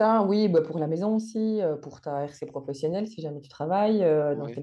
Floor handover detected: No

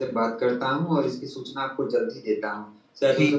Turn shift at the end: No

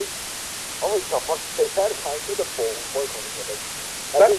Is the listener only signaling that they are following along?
Yes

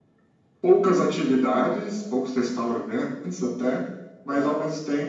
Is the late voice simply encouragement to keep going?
Yes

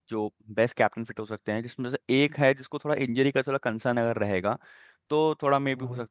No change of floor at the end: Yes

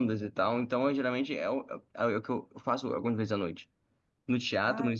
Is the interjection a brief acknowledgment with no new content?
Yes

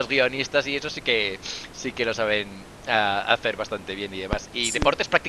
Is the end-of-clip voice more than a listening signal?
No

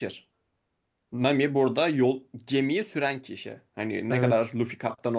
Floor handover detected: No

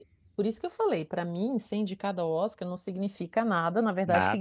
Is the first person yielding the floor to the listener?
No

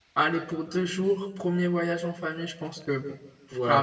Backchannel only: No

